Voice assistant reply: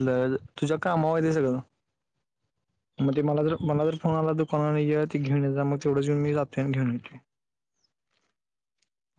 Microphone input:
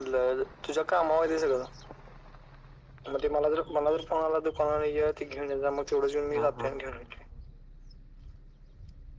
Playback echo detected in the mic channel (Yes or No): Yes